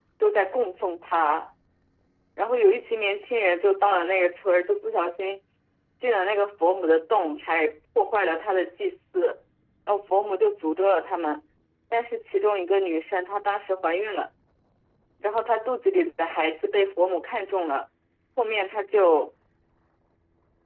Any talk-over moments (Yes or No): No